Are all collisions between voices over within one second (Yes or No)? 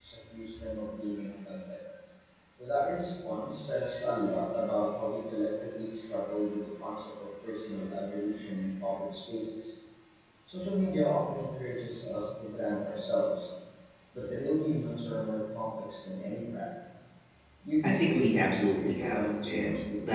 No